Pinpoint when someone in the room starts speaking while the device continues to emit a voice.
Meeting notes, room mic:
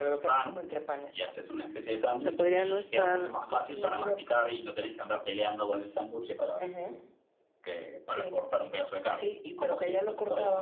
2.2 s

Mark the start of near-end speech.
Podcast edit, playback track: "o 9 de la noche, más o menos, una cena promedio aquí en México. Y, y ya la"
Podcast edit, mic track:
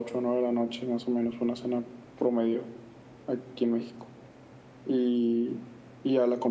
none

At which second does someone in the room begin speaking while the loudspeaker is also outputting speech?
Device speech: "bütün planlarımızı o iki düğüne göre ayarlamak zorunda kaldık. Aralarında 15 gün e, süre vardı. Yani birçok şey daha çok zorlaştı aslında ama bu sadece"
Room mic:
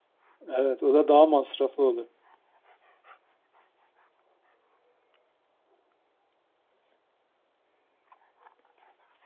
0.5 s

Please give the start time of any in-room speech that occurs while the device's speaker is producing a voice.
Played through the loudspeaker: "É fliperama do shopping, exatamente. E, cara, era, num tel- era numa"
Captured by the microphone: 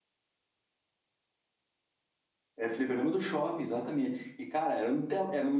none

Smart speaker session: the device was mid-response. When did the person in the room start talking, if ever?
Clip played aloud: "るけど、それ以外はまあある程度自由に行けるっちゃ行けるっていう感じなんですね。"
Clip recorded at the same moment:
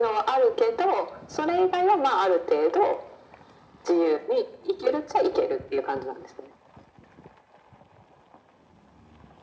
none

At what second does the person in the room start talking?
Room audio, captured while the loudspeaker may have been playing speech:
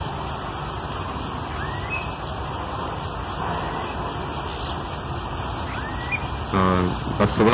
6.5 s

